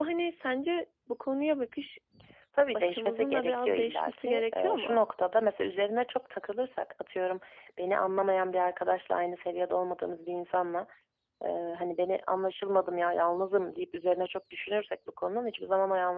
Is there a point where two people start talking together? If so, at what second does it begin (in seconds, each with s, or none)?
2.7 s